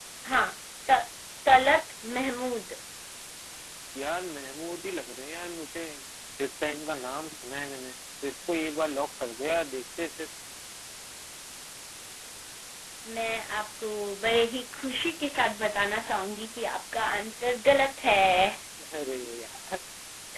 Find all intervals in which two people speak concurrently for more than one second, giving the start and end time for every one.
none

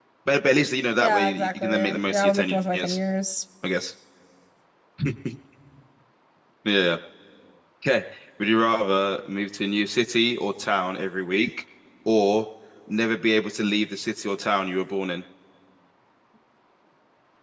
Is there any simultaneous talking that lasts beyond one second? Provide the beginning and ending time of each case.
1.0-3.0

